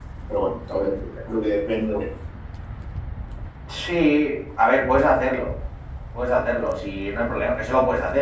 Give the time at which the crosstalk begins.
none

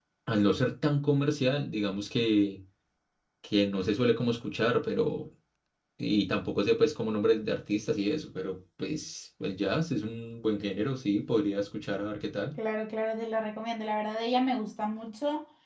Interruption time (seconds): none

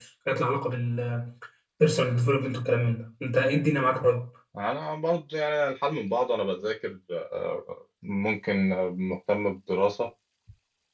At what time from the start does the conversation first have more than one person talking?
none

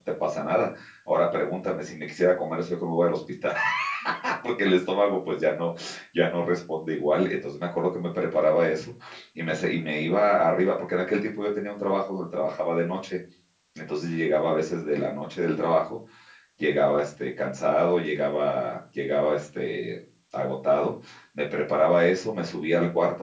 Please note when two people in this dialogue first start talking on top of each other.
none

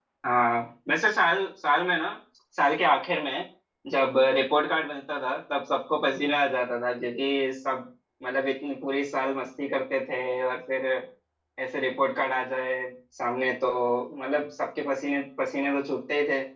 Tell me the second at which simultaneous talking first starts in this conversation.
none

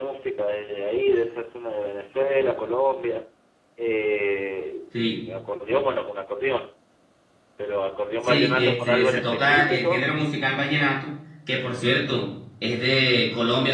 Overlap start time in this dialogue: 8.2 s

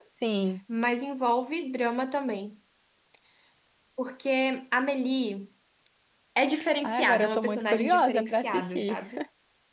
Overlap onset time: 6.8 s

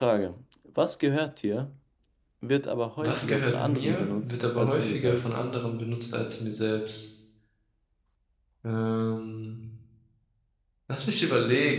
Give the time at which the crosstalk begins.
3.0 s

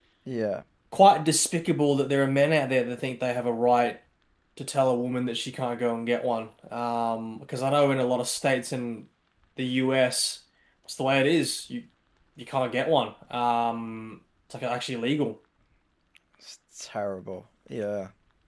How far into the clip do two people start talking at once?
none

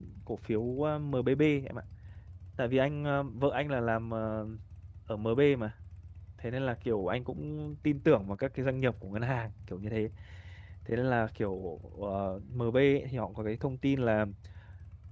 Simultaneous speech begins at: none

